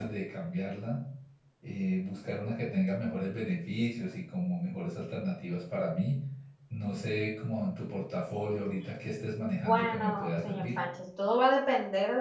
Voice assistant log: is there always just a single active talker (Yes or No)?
No